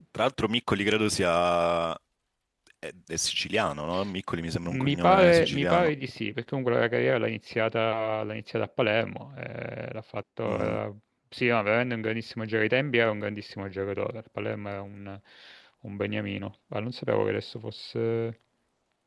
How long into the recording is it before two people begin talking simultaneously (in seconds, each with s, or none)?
4.7 s